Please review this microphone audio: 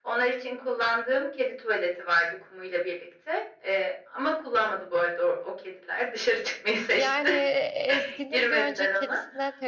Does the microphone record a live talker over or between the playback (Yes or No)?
Yes